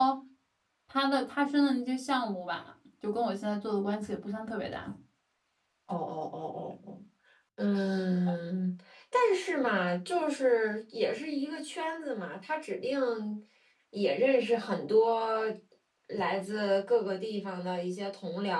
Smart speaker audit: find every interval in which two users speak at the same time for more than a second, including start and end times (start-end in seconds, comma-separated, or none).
none